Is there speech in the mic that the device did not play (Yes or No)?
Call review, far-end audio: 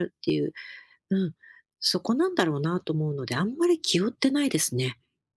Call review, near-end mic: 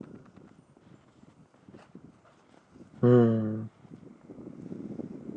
Yes